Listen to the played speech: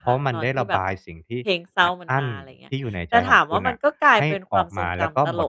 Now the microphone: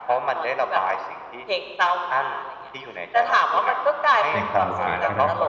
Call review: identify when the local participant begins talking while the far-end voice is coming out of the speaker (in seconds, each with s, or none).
4.3 s